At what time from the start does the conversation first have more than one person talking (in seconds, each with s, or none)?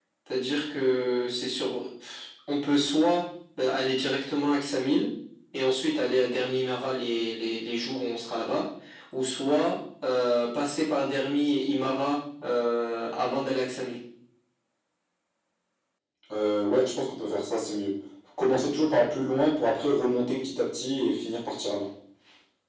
none